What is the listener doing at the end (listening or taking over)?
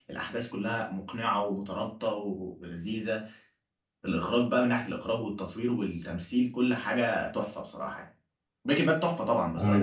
taking over